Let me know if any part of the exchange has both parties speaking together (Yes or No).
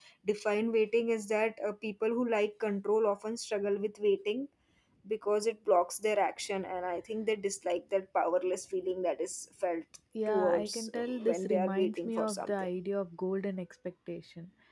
Yes